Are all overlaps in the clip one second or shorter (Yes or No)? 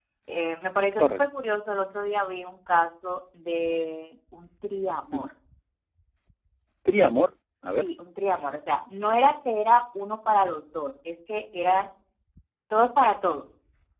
Yes